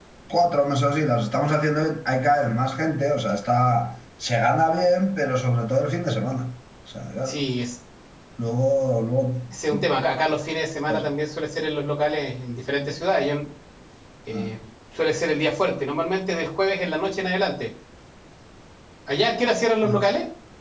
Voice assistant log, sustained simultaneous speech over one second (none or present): none